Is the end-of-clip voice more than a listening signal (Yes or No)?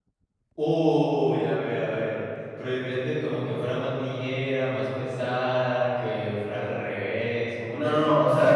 Yes